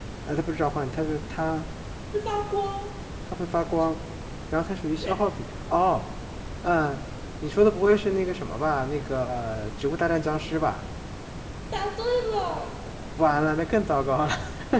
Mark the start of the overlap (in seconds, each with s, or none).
none